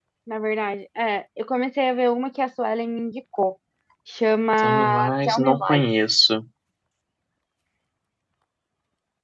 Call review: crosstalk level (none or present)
present